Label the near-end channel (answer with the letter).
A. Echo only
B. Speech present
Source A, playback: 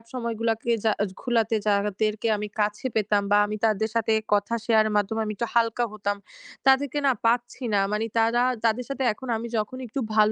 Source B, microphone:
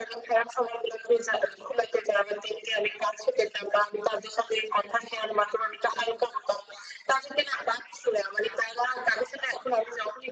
A